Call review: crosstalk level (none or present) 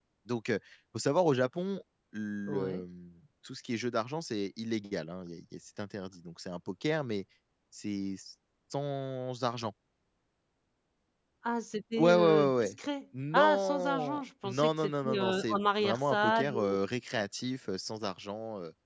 present